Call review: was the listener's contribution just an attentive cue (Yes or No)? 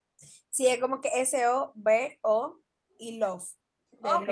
No